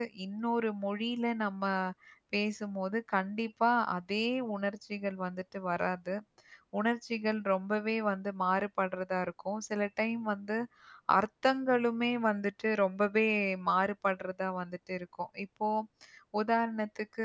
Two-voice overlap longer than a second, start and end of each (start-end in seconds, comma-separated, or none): none